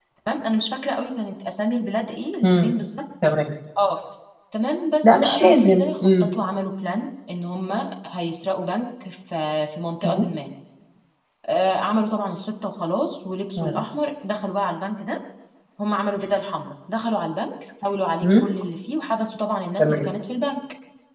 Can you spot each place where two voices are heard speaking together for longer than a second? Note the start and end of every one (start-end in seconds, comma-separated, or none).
5.0-6.3